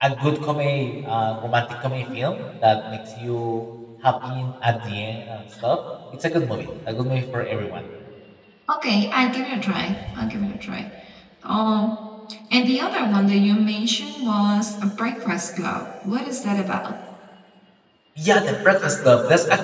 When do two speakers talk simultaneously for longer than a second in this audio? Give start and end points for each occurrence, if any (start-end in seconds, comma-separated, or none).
none